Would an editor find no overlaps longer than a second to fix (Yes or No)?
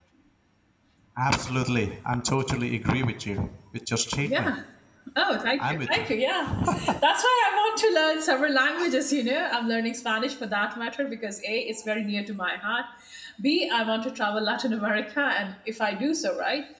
Yes